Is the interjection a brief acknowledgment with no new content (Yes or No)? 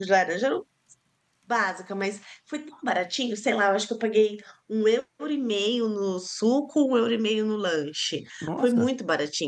Yes